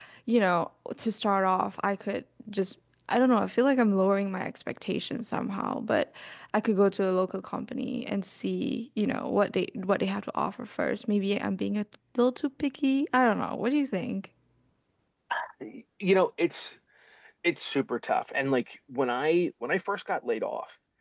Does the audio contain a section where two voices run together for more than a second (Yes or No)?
No